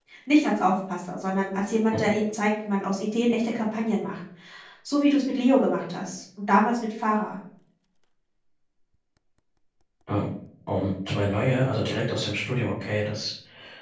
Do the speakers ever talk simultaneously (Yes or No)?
No